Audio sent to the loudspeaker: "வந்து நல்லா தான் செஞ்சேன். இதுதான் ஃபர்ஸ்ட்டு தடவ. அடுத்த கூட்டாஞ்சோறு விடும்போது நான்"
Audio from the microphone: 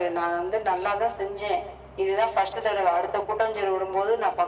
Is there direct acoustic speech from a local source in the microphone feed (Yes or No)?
No